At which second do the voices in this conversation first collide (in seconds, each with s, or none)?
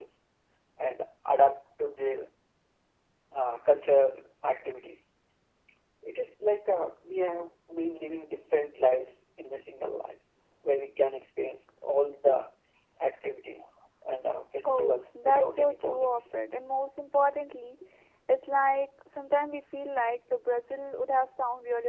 14.7 s